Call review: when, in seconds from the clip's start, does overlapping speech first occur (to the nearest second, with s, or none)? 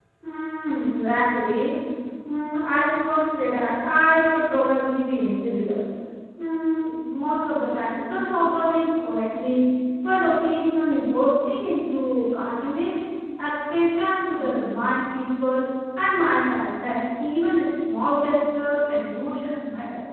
none